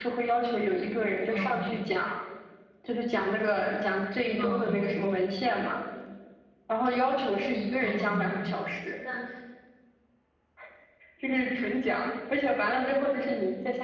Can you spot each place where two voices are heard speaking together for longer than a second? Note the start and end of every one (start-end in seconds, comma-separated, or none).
none